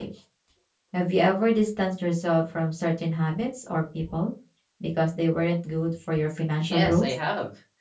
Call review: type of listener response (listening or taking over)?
taking over